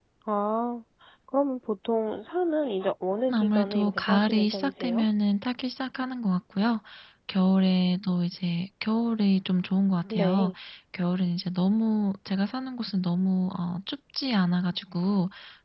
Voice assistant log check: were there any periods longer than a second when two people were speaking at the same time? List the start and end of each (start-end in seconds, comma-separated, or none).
3.3-5.0